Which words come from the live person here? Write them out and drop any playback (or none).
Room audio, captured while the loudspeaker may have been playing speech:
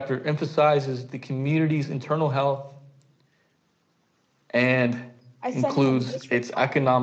I sent him this reply.